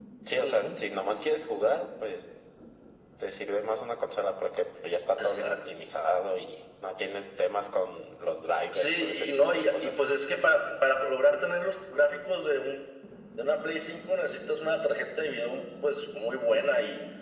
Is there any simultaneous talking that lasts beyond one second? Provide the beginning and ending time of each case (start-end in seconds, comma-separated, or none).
8.7-9.9